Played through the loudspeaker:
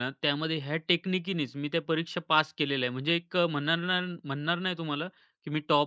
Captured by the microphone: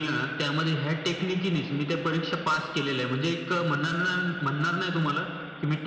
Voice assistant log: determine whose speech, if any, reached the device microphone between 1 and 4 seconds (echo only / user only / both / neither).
echo only